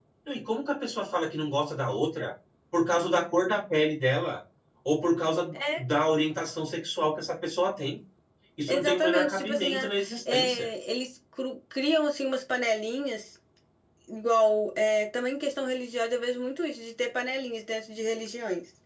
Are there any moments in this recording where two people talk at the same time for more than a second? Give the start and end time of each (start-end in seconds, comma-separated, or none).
8.7-10.7